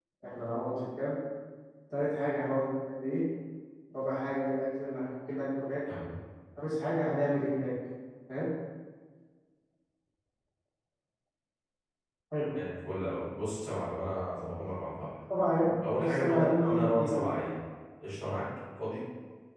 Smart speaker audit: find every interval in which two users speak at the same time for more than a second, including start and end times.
16.0-17.3

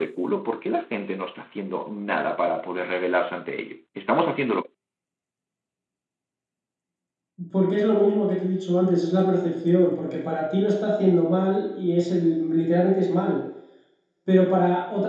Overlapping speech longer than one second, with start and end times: none

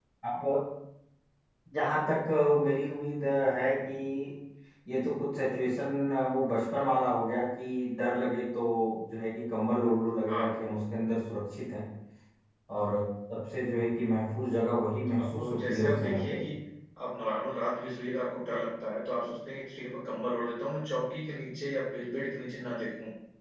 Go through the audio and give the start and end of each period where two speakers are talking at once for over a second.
15.2-16.4

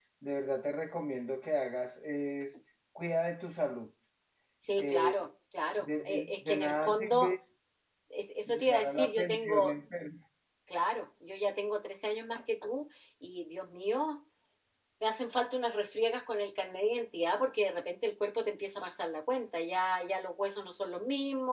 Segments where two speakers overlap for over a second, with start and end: 5.8-7.3, 8.5-9.8

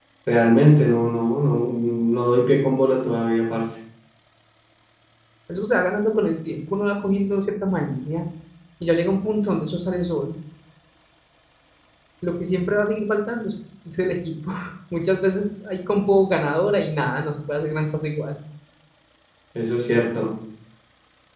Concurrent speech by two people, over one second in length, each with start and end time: none

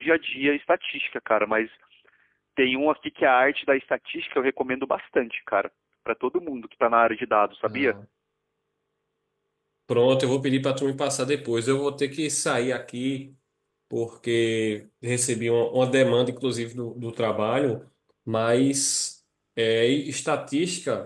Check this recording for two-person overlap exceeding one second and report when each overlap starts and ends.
none

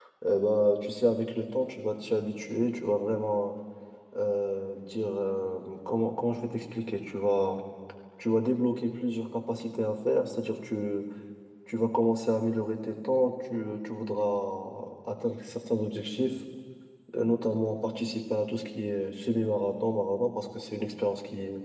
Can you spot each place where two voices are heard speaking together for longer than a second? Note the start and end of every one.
none

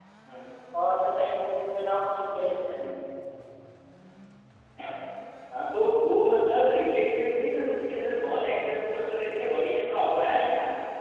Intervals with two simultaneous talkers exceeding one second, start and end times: none

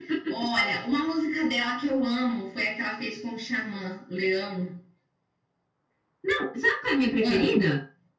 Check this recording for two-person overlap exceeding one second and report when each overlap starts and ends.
none

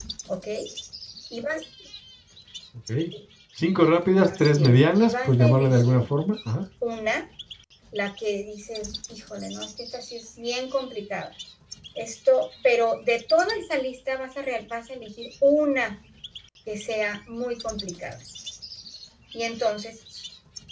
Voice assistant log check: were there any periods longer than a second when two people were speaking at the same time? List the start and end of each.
4.3-6.0

